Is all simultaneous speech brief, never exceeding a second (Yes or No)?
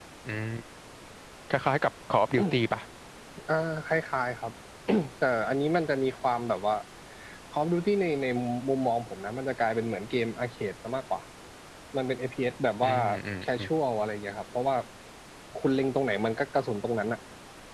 Yes